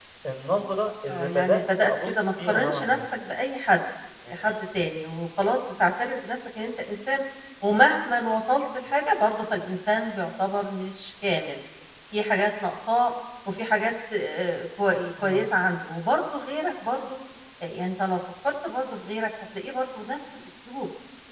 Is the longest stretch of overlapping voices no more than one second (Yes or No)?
No